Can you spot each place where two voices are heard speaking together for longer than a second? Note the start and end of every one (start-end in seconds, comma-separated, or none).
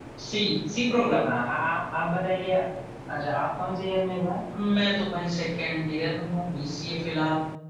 none